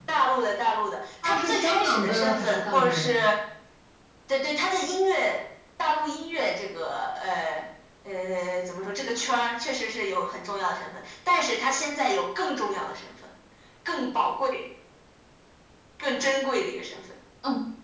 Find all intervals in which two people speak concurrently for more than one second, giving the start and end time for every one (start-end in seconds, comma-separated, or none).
1.2-3.1